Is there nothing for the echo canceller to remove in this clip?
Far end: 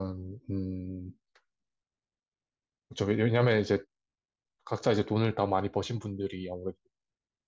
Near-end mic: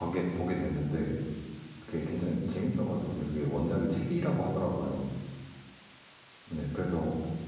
Yes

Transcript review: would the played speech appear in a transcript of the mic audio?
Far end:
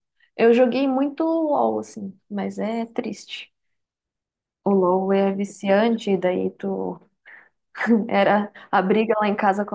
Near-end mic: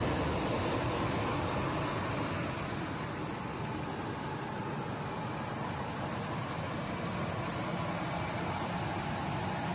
No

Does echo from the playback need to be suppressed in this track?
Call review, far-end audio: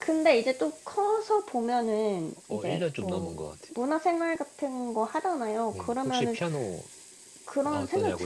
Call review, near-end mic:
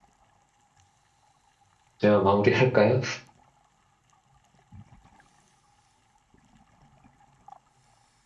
No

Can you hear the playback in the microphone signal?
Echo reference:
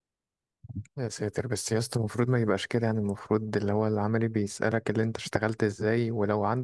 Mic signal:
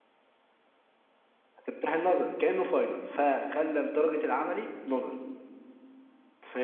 No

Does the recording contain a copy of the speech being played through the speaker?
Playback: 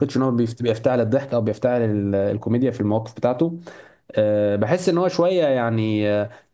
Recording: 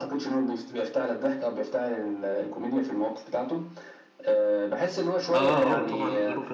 Yes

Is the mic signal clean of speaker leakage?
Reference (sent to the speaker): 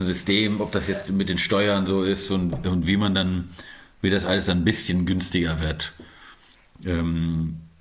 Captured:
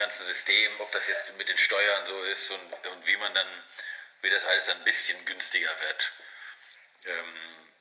No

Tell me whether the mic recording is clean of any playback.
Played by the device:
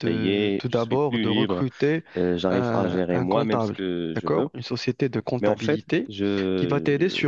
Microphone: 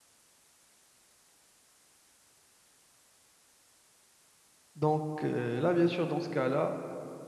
Yes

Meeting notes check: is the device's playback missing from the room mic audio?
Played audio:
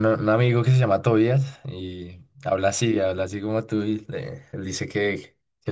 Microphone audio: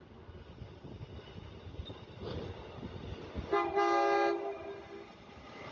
Yes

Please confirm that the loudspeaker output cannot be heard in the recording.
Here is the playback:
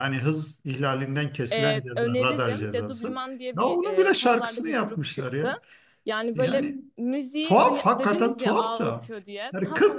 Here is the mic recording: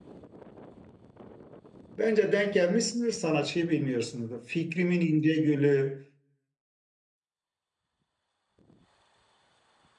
Yes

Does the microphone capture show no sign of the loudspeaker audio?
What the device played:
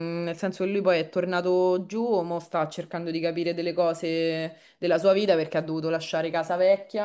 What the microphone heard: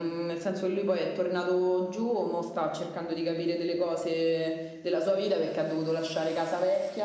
No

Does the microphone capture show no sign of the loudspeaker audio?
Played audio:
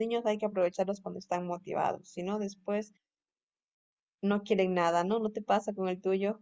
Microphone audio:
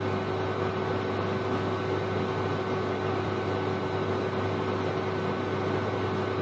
Yes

